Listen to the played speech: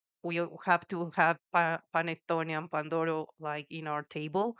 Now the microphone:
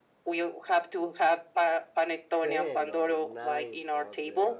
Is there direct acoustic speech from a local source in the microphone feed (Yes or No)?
Yes